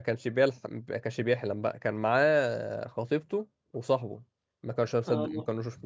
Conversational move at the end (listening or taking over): listening